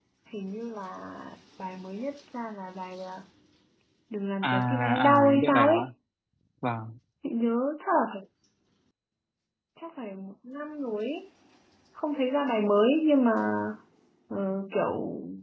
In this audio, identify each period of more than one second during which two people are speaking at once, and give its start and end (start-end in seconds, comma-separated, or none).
4.4-5.9